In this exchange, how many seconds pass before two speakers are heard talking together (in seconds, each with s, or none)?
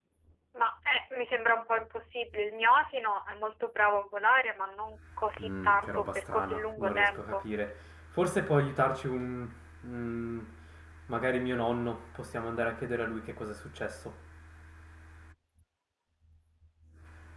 5.4 s